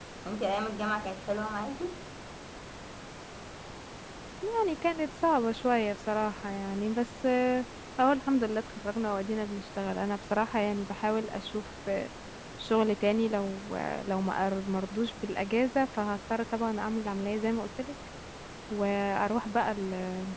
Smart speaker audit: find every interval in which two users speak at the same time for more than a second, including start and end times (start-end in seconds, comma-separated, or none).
none